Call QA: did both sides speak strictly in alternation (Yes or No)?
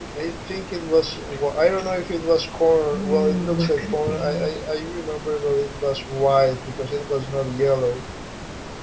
No